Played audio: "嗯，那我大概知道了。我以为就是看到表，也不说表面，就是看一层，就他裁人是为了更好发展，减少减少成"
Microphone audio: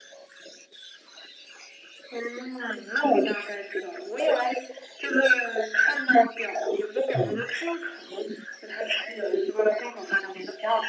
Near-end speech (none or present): present